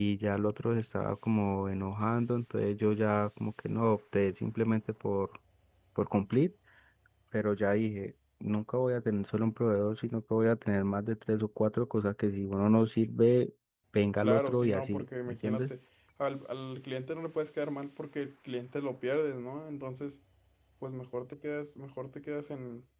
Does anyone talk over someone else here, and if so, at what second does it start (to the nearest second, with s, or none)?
14 s